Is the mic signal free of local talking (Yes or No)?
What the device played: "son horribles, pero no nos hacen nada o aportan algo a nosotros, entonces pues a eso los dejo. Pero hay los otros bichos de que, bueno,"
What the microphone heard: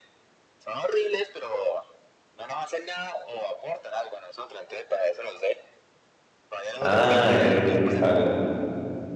No